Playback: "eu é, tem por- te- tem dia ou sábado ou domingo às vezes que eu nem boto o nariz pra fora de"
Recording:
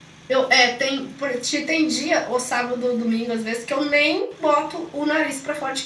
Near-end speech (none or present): none